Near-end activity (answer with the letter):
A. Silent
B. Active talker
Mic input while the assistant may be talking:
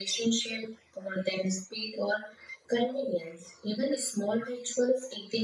A